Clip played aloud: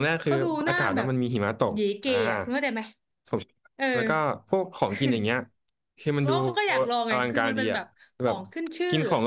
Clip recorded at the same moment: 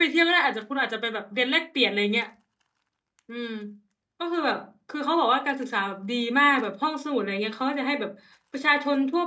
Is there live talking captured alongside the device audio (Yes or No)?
Yes